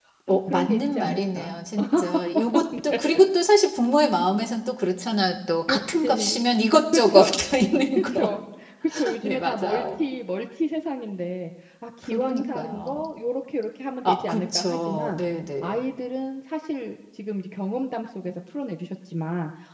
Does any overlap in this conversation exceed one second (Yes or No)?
Yes